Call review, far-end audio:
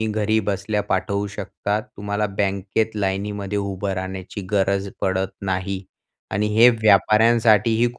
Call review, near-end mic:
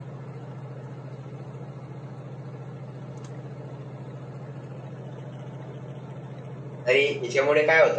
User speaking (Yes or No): Yes